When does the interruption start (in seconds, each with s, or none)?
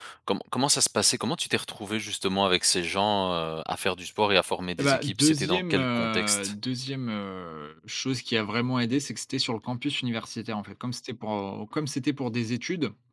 4.8 s